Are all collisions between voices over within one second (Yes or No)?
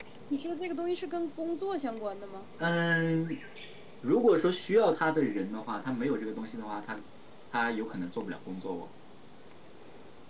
Yes